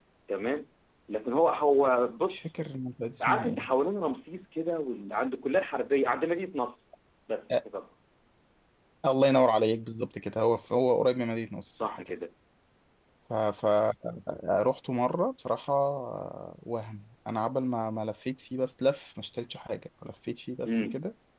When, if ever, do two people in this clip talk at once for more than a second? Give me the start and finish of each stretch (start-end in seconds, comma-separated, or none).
none